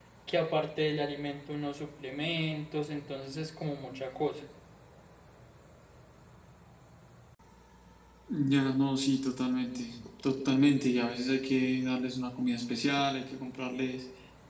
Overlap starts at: none

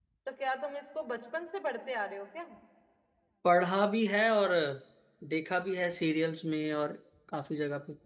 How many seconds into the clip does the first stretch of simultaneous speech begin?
none

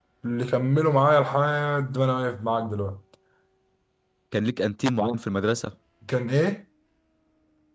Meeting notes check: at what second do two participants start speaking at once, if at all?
none

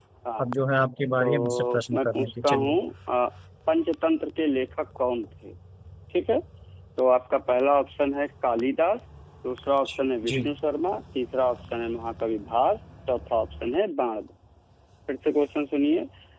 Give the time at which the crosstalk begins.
1.2 s

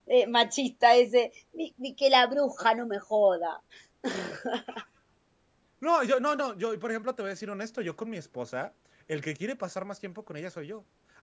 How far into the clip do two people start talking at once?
none

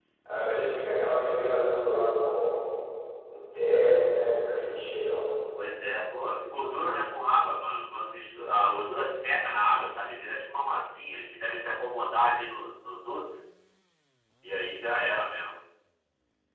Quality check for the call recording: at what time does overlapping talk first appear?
none

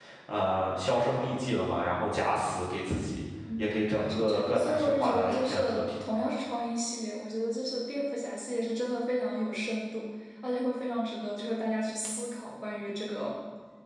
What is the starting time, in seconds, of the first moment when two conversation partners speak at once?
3.5 s

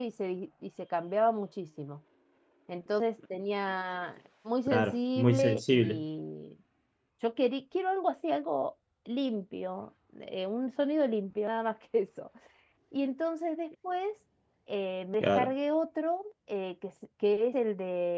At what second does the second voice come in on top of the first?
4.7 s

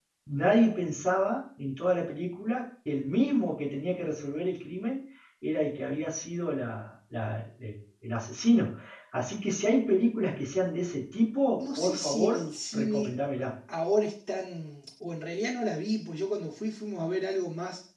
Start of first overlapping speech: 11.6 s

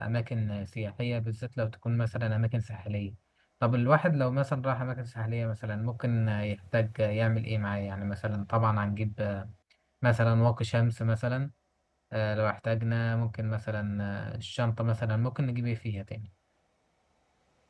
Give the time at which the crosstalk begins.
none

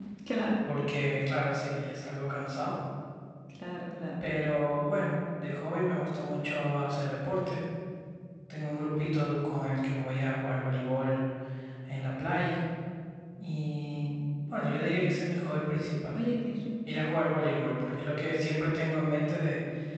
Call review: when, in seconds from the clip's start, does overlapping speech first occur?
none

